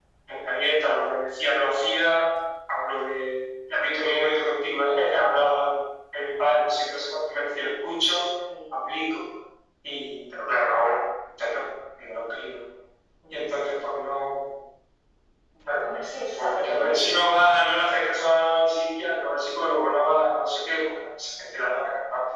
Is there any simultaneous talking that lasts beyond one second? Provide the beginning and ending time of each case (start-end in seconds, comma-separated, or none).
16.3-17.7